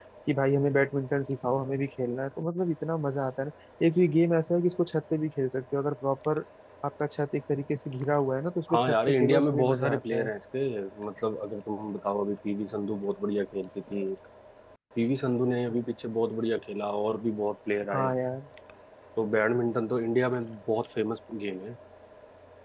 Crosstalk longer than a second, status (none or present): present